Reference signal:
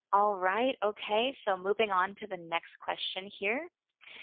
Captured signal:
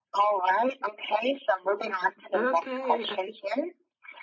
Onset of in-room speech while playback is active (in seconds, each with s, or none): 2.3 s